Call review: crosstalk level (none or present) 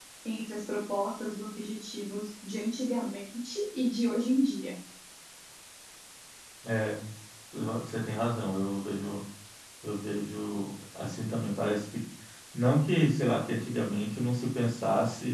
none